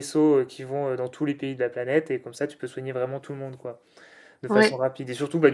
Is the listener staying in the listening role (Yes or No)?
Yes